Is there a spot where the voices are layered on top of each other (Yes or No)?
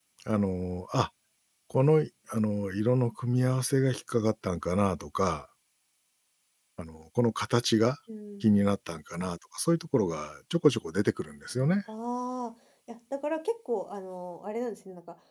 No